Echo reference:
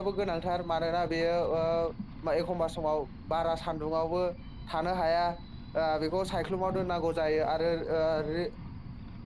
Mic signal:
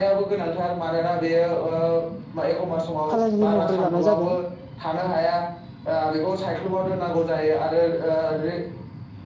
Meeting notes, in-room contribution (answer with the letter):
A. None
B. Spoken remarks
B